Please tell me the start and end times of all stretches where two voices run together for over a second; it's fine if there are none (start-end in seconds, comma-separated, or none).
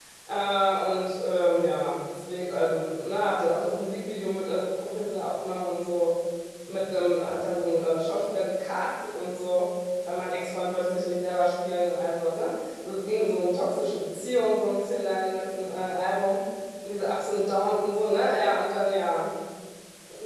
none